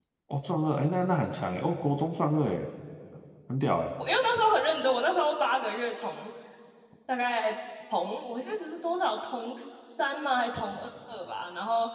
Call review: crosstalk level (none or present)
none